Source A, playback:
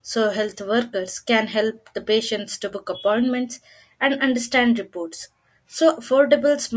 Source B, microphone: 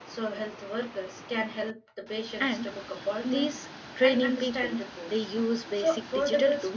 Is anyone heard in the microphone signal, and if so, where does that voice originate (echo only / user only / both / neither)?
both